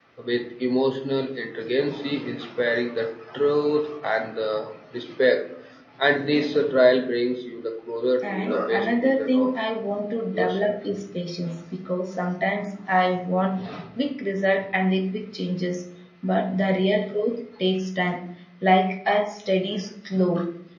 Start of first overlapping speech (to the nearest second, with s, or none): 8 s